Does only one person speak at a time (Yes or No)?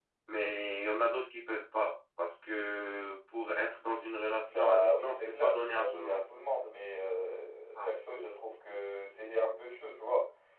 No